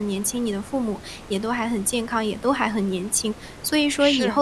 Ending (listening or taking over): listening